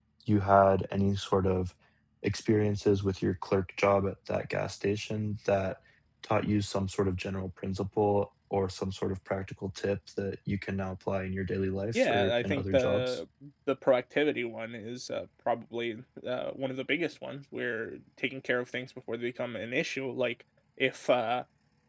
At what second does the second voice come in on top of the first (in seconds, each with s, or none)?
11.9 s